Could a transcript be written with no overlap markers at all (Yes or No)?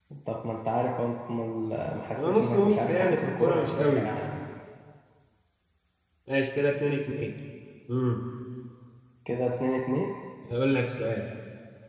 No